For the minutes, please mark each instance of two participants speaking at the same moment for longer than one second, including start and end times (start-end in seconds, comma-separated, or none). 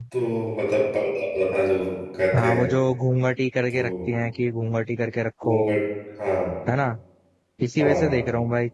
none